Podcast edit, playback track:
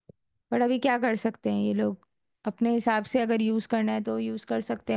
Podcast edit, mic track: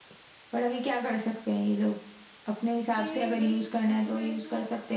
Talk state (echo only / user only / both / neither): both